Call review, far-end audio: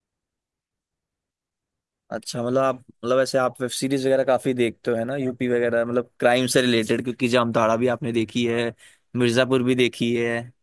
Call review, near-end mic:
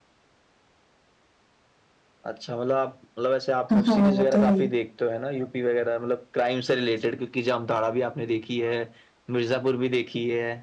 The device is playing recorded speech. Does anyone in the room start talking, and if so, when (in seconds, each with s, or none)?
3.7 s